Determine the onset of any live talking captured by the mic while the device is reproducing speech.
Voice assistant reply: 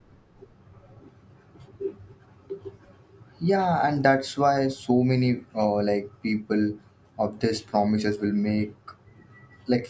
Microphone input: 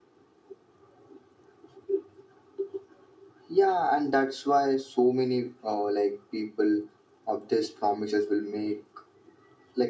none

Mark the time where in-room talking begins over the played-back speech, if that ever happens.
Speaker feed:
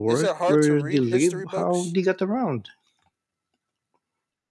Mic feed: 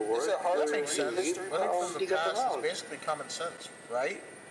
0.5 s

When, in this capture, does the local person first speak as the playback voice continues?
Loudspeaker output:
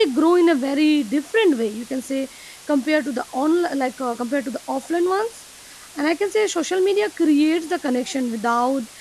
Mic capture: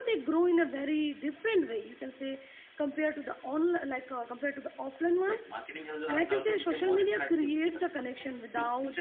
5.3 s

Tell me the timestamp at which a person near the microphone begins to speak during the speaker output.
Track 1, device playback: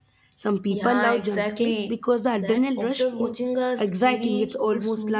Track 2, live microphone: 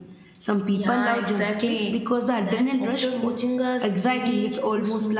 none

